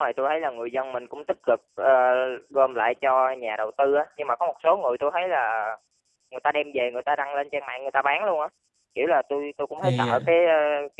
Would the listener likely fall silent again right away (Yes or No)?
Yes